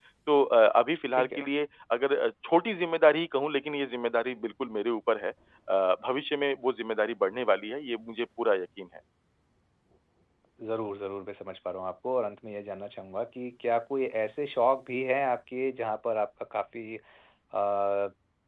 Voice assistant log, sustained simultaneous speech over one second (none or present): none